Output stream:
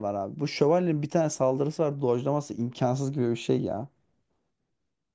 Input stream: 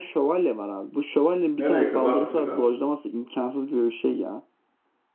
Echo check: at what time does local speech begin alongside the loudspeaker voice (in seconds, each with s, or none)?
1.6 s